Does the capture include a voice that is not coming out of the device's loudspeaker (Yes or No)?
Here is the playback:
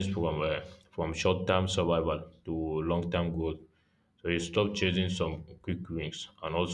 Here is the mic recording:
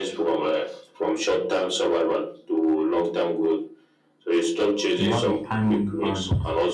Yes